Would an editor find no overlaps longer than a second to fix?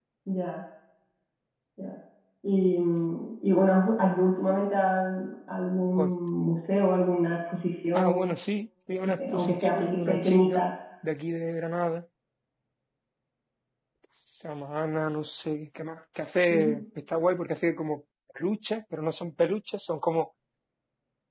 No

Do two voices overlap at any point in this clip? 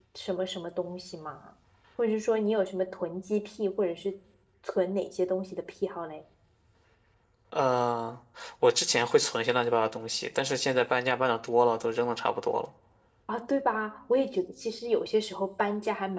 No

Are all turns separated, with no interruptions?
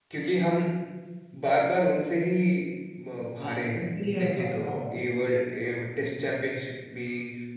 No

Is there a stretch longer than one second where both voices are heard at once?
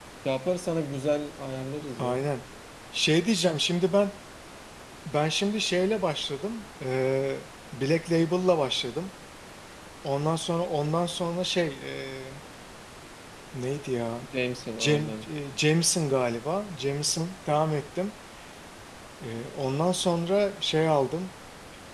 No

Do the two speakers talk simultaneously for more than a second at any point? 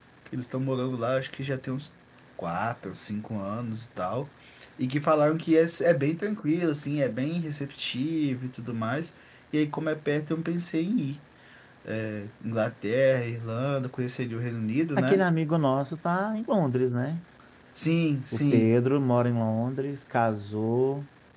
No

